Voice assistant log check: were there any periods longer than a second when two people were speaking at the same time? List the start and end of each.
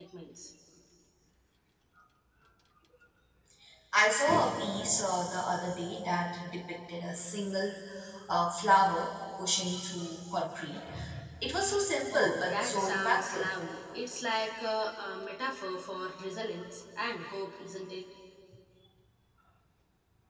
12.1-13.6

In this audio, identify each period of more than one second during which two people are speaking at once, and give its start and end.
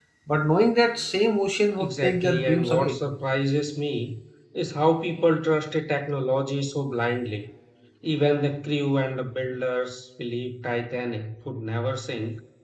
1.8-3.0

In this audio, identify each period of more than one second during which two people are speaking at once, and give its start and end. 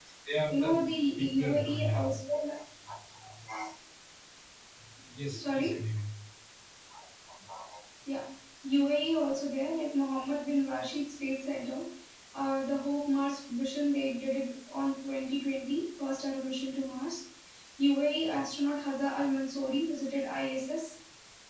0.5-2.1

